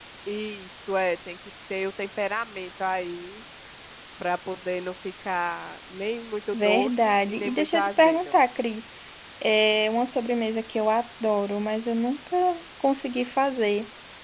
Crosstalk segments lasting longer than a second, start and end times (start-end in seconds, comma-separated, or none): 6.5-8.4